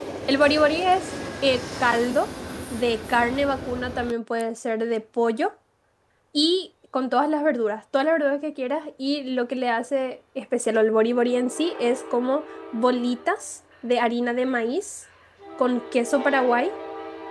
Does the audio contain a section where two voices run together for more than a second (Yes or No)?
No